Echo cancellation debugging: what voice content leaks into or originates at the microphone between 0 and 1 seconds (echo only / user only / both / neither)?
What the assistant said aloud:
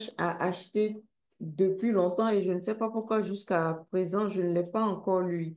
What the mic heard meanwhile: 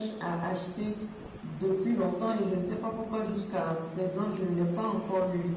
echo only